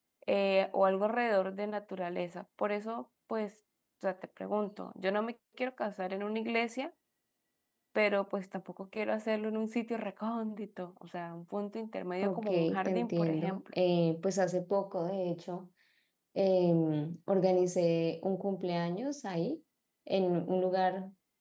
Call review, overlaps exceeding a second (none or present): present